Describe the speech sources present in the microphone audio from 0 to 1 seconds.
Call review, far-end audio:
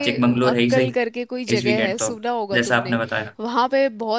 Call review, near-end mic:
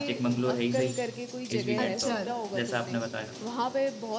echo only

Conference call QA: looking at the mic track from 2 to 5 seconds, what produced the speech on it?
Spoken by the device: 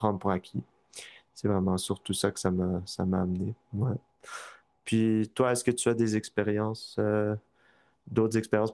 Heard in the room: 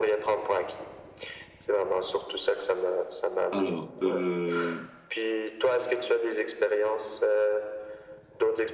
both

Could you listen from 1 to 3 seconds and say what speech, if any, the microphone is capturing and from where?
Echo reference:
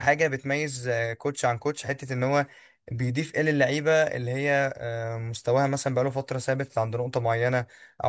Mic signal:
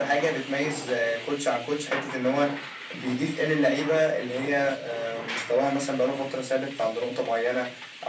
echo only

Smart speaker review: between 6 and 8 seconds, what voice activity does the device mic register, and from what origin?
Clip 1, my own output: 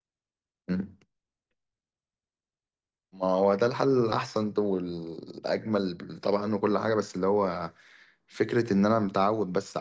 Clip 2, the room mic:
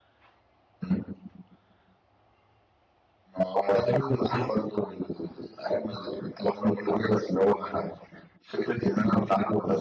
echo only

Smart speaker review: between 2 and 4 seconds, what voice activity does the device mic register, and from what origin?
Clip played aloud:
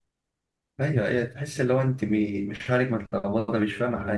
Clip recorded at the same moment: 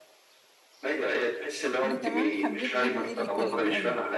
both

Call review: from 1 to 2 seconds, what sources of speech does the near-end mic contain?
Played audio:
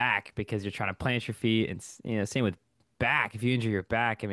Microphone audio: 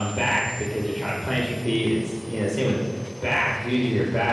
echo only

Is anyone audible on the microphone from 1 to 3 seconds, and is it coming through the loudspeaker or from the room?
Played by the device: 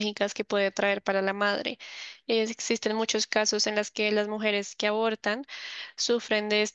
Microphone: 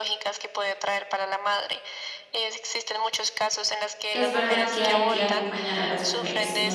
echo only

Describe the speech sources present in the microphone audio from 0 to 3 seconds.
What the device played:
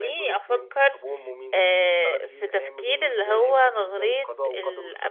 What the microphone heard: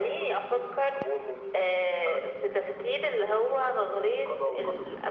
echo only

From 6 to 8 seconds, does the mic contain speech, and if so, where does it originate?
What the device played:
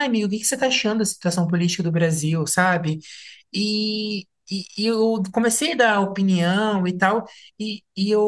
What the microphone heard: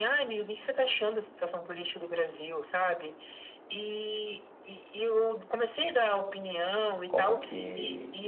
both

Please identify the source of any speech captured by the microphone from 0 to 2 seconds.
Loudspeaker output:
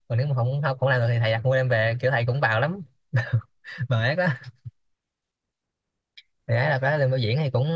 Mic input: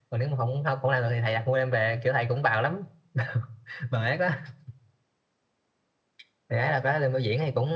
echo only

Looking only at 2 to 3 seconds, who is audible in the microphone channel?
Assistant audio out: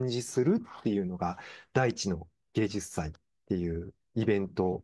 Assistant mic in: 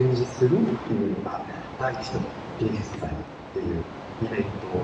echo only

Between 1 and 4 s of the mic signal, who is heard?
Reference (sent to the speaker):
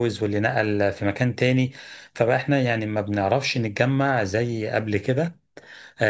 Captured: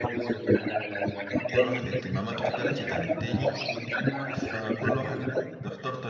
both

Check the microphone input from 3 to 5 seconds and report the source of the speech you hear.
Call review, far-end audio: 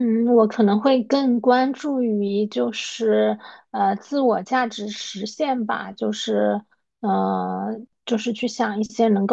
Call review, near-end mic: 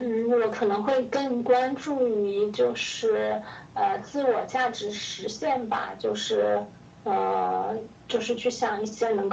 echo only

